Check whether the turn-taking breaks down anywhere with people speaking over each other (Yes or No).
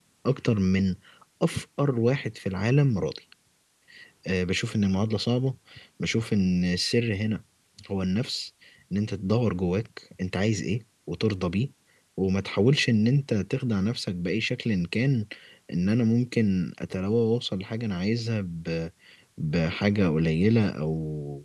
No